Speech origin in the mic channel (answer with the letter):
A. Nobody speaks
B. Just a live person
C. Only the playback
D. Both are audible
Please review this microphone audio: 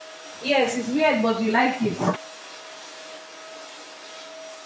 B